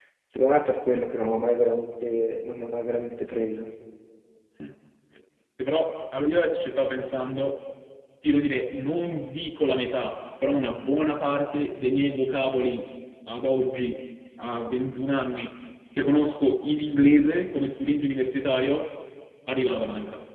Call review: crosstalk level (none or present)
none